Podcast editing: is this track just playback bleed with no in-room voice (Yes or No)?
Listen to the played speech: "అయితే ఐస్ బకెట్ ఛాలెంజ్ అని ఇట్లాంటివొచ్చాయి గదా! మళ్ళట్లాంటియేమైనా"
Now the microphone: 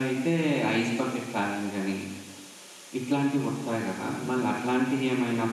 Yes